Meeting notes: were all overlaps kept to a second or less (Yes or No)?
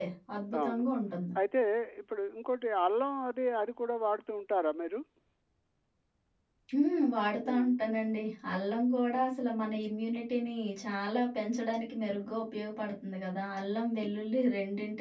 Yes